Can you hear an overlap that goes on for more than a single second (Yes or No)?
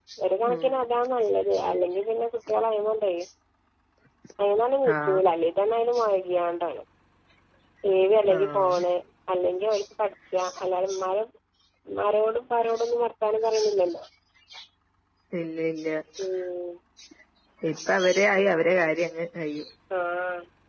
No